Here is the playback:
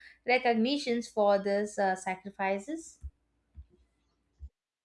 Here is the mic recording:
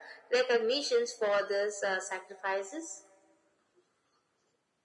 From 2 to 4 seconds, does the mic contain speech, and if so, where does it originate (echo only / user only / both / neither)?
echo only